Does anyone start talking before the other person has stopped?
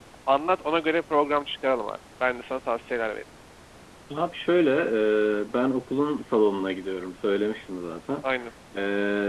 No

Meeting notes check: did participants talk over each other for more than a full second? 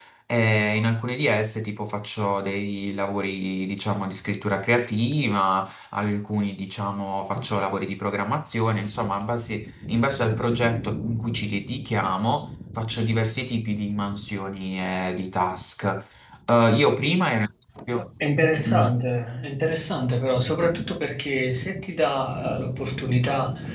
No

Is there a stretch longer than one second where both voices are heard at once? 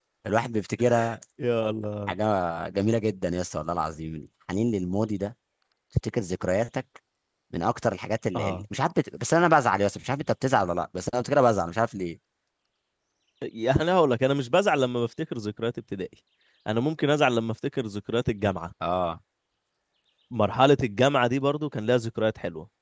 No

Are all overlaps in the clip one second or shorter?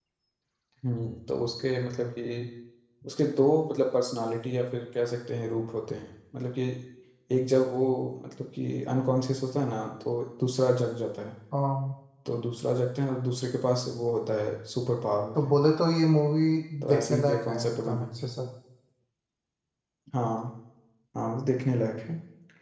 No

